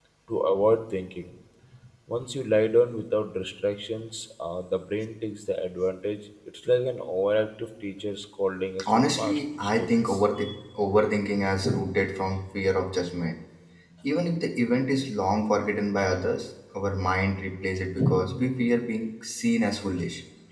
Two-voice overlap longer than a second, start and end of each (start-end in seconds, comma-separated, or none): 8.9-10.2